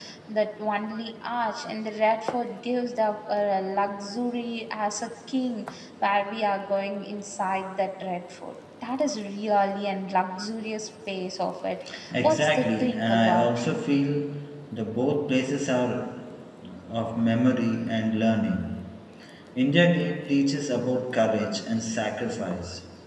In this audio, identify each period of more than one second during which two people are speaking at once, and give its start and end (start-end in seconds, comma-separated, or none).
12.1-13.8